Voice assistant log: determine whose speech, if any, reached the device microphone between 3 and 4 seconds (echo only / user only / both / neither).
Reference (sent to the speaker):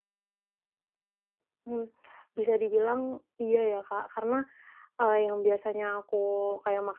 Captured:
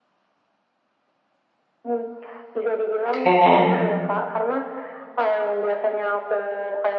both